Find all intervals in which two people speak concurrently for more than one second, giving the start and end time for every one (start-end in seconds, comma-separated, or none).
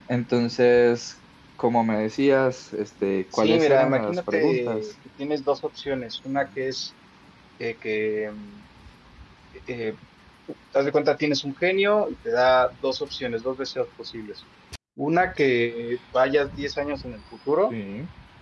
3.3-4.9